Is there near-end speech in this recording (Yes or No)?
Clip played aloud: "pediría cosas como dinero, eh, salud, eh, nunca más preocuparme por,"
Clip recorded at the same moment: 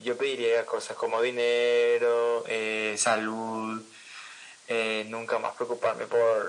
No